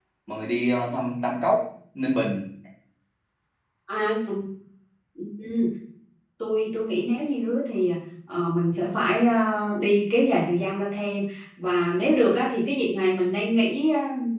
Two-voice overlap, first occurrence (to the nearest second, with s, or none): none